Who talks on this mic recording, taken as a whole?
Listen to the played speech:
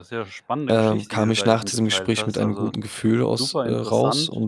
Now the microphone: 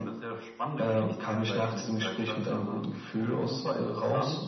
echo only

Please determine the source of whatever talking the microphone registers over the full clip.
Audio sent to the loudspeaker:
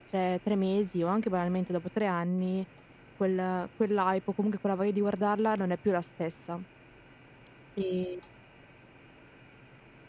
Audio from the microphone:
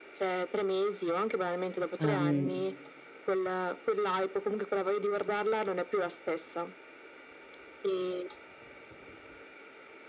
both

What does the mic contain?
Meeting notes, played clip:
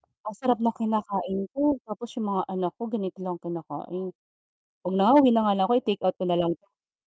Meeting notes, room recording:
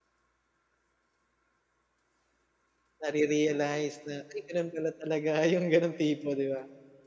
user only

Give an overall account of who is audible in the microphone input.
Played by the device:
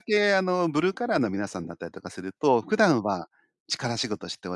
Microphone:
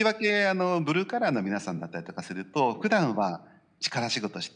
echo only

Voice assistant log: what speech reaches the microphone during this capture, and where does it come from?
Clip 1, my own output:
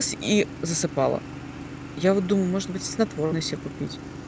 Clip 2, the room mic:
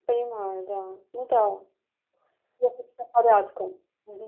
user only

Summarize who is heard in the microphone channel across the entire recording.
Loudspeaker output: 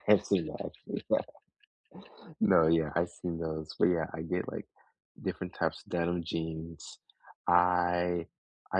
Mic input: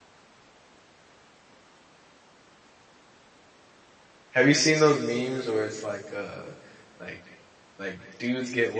user only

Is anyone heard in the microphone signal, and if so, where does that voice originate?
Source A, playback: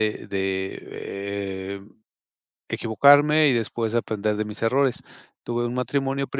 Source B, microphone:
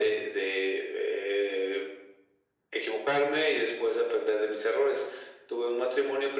echo only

